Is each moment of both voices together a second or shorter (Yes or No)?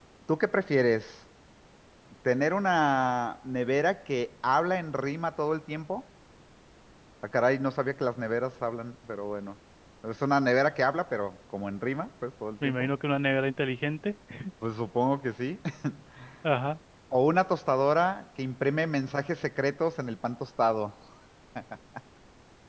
Yes